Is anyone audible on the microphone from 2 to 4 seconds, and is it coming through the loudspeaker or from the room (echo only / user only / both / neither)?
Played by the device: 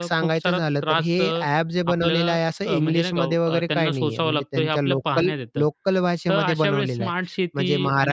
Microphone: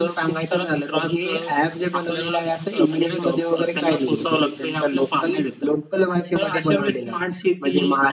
echo only